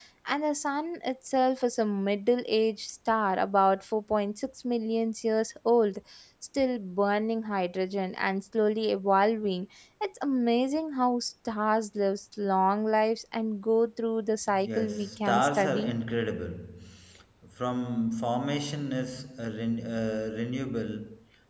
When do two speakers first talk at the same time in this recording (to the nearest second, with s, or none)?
15 s